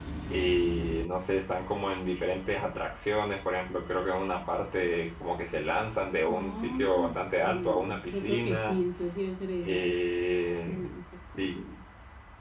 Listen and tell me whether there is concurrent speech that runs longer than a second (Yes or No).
Yes